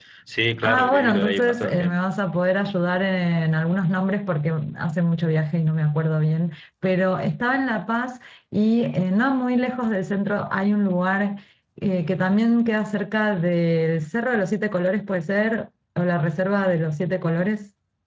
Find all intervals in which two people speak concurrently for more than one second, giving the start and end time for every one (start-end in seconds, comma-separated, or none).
0.6-2.0